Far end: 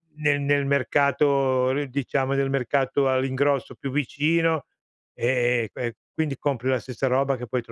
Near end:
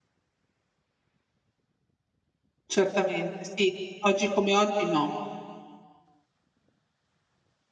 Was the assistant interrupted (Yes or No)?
Yes